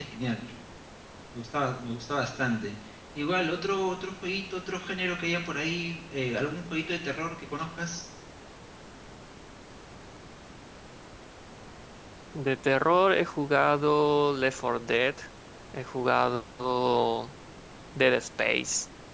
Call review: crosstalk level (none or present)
none